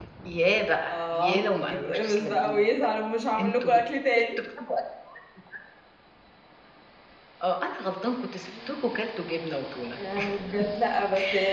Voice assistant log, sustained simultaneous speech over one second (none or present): present